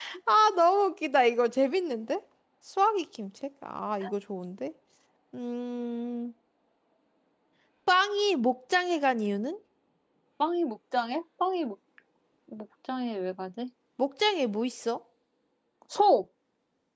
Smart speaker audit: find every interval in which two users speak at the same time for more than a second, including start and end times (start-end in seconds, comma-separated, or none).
none